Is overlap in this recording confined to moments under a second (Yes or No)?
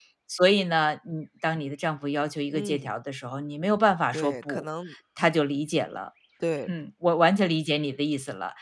Yes